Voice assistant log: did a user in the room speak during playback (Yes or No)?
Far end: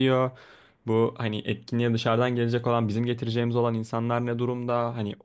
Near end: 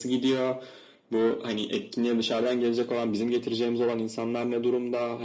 No